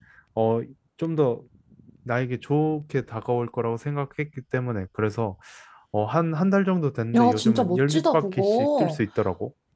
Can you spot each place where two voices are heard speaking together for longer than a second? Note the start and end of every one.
7.2-9.0

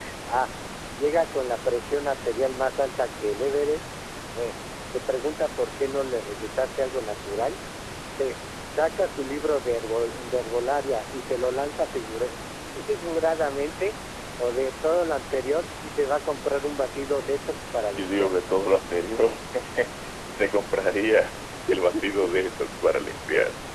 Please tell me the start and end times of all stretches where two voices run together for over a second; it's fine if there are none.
none

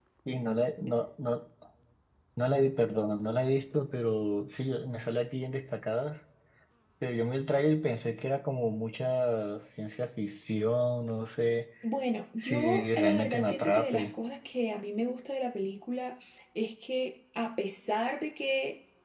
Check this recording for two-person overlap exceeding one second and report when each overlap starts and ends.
12.4-14.1

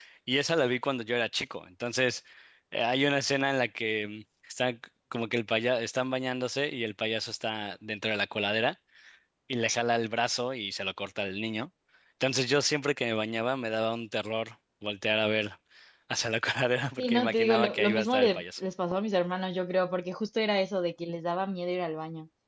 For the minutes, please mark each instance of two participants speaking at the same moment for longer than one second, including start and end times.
17.0-18.4

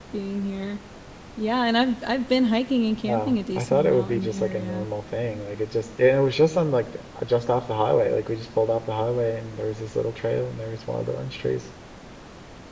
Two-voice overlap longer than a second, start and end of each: 3.0-4.9

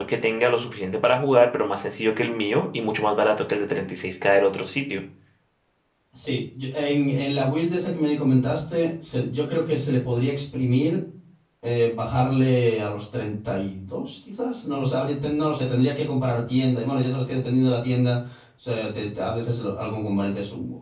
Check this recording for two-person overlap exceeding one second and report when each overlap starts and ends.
none

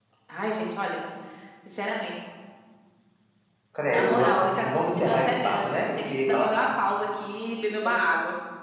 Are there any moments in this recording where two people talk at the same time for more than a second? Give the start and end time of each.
3.8-6.5

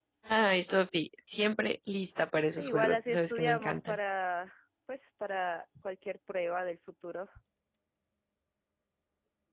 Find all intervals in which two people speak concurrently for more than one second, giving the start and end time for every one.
2.5-4.0

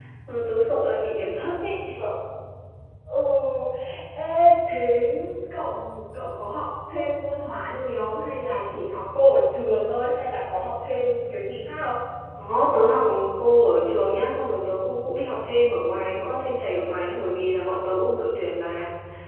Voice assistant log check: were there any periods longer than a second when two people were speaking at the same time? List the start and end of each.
none

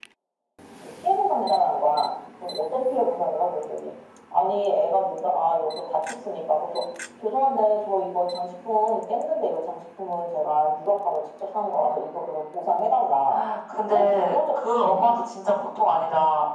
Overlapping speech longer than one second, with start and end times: 13.8-15.2

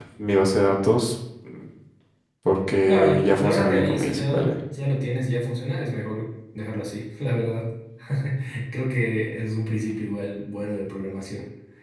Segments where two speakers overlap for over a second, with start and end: 2.9-4.5

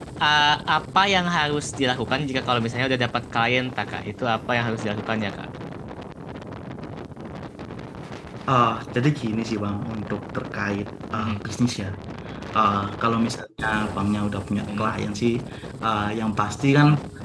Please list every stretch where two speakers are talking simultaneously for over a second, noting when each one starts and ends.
none

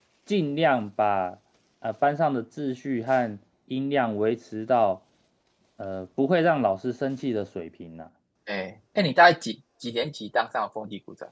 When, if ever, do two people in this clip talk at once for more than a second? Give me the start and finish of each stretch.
none

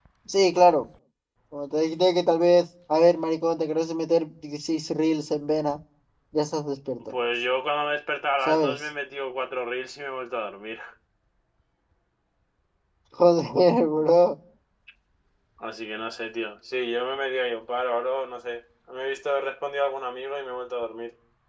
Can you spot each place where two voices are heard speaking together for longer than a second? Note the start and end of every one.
none

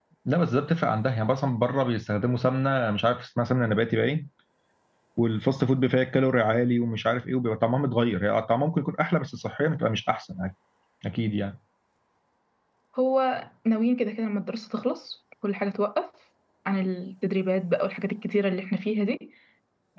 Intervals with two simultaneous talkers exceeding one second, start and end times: none

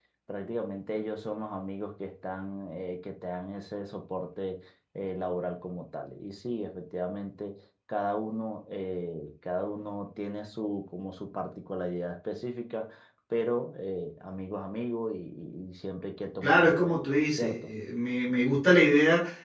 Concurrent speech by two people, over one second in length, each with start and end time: 16.4-17.7

